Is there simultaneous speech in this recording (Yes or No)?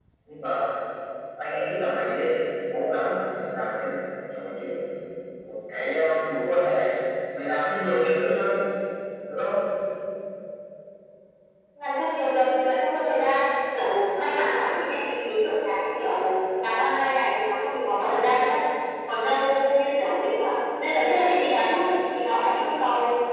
No